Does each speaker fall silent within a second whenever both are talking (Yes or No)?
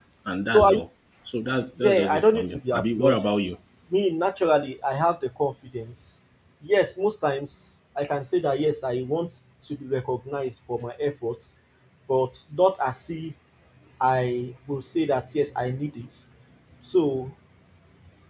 No